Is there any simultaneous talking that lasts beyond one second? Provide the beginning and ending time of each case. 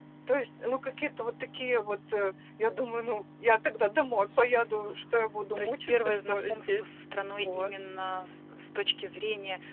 5.6-6.8

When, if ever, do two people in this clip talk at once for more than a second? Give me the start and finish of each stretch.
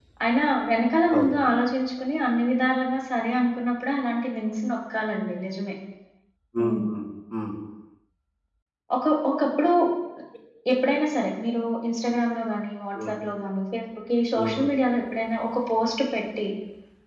none

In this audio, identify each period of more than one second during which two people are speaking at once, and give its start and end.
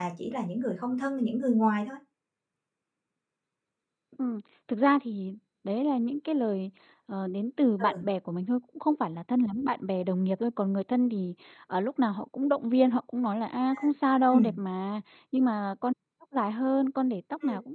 none

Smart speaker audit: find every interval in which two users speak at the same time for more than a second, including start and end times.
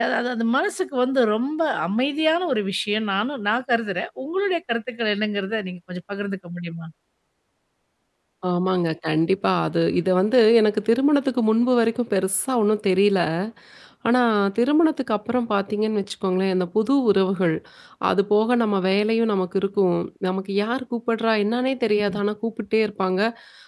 none

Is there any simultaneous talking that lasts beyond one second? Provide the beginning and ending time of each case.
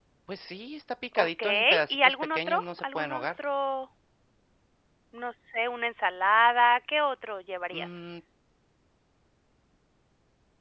1.2-3.3

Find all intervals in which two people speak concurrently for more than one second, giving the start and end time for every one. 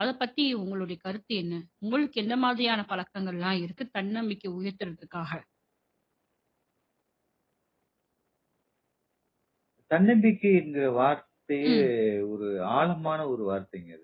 none

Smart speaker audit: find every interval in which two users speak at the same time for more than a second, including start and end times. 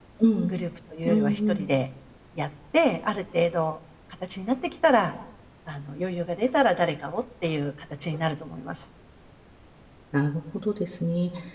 none

